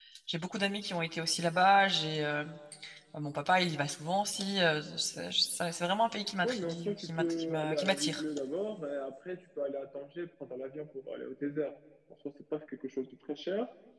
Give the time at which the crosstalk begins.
6.4 s

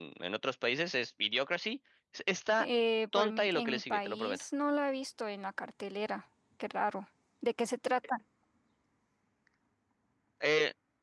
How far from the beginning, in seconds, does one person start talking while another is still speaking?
3.1 s

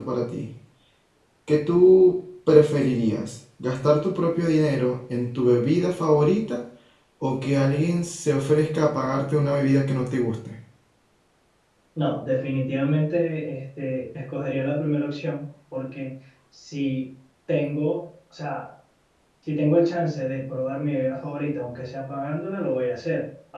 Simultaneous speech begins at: none

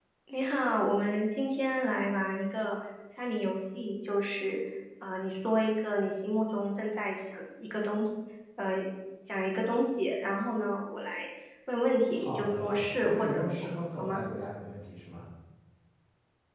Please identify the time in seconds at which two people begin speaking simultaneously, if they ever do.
12.0 s

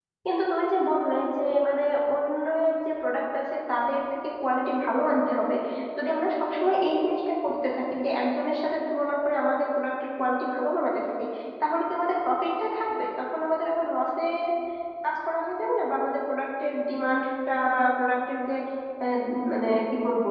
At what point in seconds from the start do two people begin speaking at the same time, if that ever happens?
none

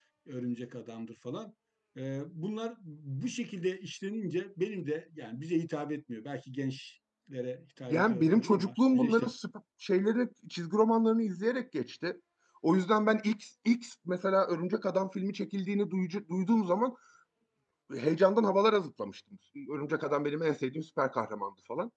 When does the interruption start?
7.9 s

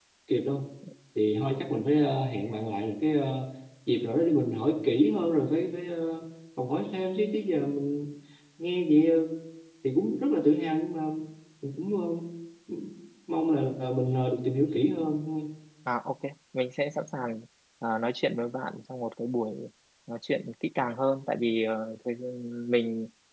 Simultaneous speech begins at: none

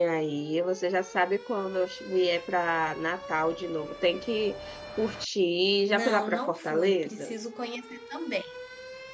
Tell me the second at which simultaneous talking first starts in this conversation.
5.9 s

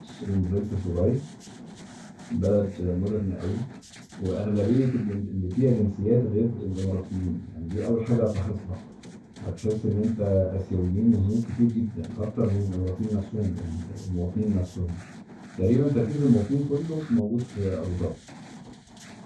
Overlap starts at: none

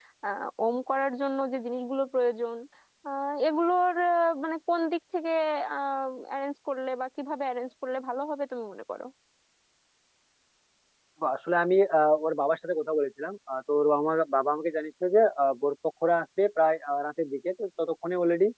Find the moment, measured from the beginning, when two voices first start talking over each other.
none

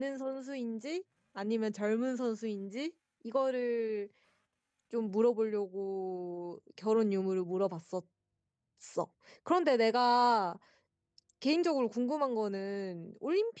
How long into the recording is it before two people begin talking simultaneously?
none

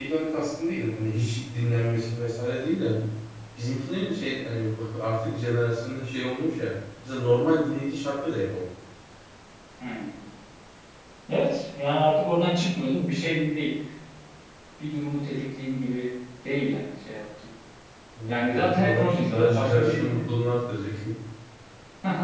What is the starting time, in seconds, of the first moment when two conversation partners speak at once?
18.3 s

